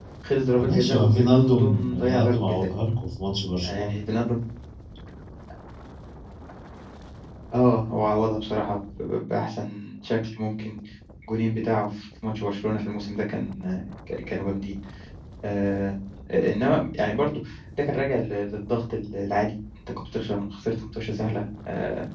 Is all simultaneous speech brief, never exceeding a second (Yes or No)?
No